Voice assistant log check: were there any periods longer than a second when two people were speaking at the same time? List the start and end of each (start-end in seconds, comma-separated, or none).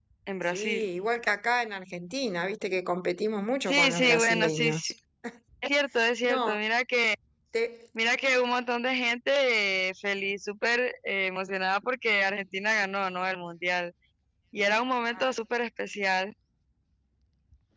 3.7-4.9